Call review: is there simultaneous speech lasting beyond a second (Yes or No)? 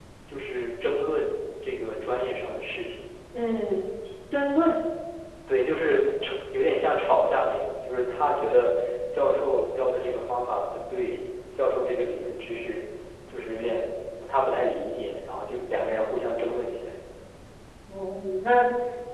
No